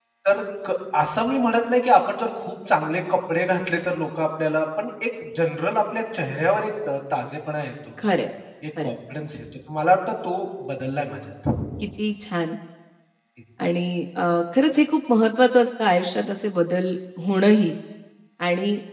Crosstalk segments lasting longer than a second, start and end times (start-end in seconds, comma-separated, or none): none